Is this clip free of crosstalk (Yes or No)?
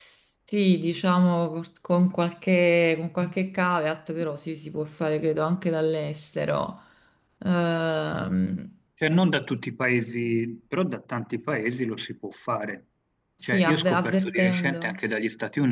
No